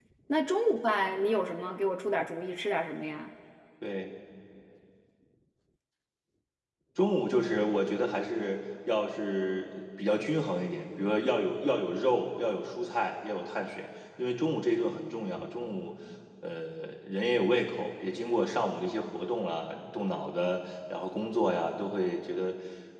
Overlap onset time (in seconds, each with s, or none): none